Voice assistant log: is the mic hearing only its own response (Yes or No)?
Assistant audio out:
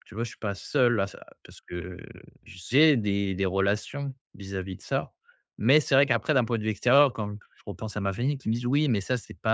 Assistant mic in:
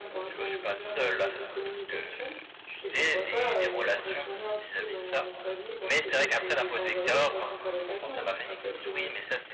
No